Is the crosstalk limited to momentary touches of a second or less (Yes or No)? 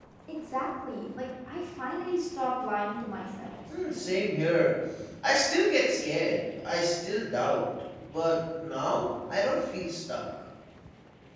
Yes